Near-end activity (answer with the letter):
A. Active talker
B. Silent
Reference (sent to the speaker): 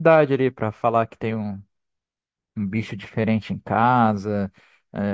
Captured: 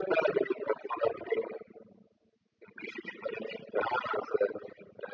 B